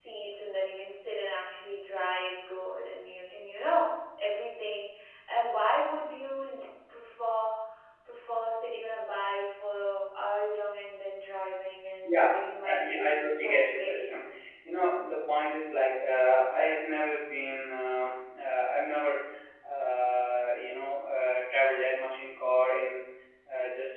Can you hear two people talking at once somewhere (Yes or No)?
Yes